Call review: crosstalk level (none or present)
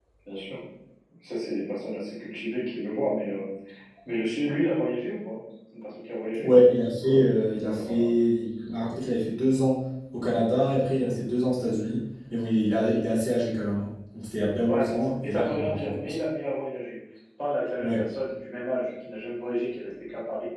present